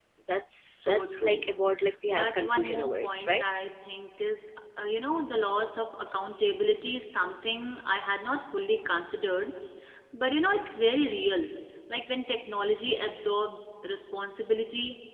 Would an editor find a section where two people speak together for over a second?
Yes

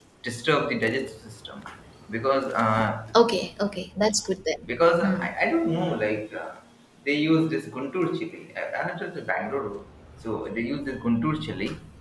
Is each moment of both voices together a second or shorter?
Yes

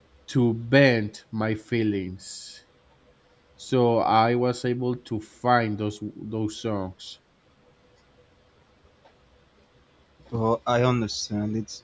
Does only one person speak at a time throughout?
Yes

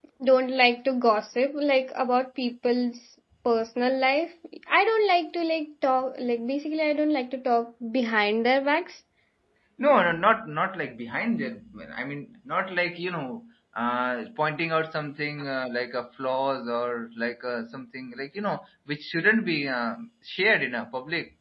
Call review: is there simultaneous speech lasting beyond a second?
No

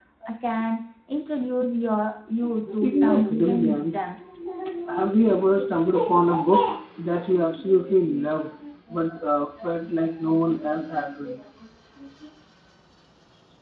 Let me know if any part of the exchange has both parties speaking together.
Yes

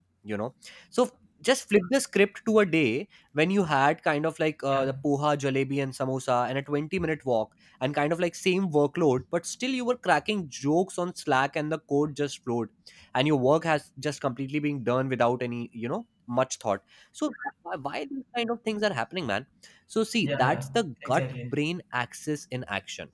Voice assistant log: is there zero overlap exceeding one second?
No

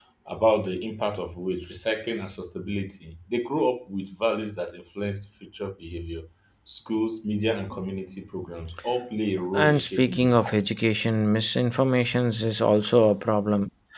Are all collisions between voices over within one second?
No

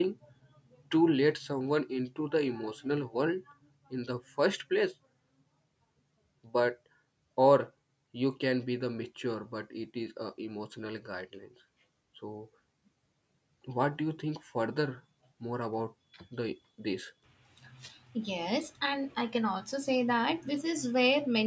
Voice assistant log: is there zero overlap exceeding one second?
Yes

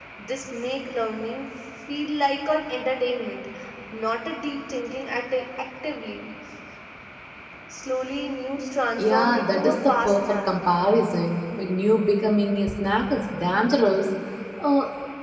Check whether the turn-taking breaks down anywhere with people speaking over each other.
Yes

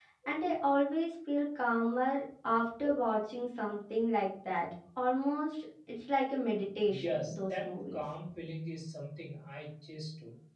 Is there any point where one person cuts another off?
Yes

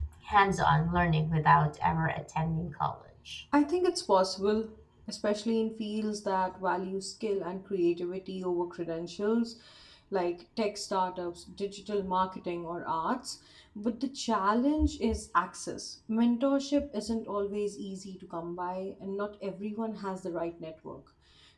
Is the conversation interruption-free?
Yes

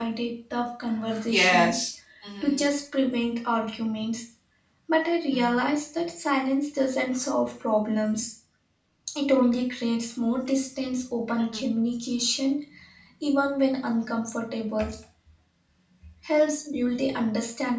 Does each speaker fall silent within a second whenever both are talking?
Yes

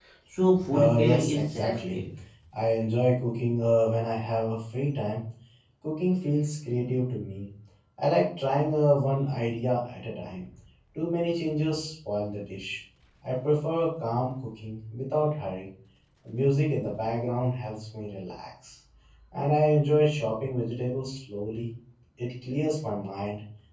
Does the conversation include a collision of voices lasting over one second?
Yes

